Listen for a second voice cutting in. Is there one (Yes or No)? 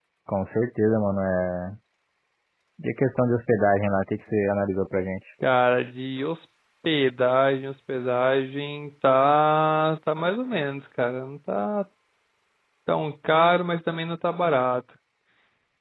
No